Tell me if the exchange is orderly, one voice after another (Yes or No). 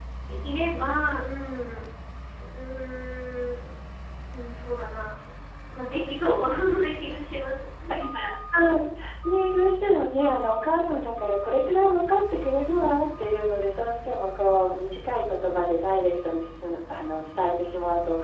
Yes